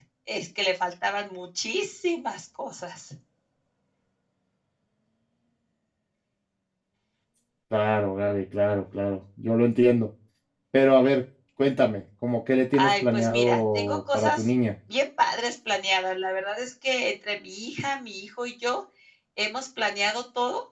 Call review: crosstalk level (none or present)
present